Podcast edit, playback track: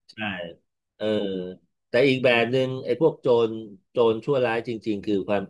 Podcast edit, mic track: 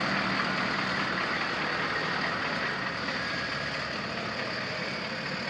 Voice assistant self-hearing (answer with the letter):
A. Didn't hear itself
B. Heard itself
A